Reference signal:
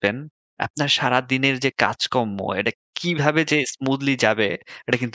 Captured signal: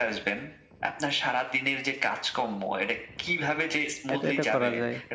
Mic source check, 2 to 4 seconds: echo only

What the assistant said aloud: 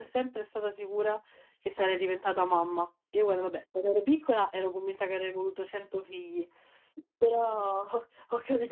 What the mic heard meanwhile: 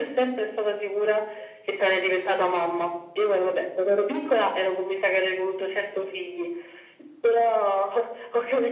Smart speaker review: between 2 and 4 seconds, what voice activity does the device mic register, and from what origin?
echo only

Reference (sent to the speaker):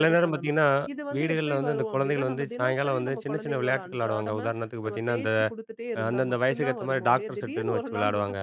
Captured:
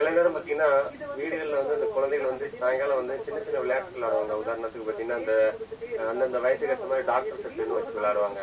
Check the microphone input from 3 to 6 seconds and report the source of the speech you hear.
echo only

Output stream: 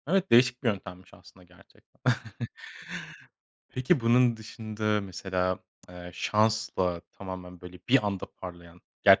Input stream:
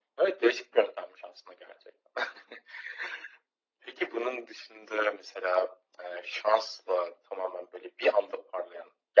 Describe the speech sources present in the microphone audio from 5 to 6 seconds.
echo only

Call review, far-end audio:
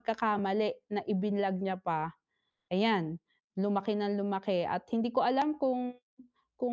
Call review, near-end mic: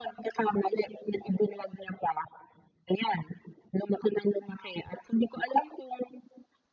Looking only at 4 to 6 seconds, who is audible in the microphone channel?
echo only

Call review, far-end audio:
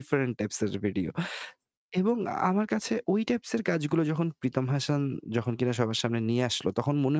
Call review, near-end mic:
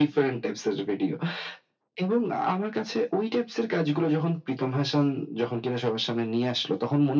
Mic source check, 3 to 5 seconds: echo only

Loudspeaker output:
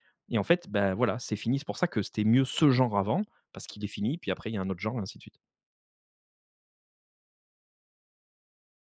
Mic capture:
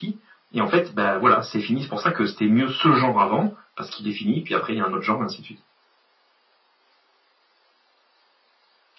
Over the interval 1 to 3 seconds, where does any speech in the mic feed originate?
echo only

